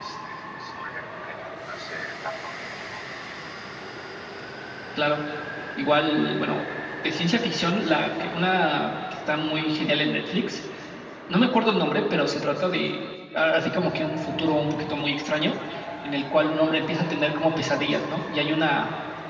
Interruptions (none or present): none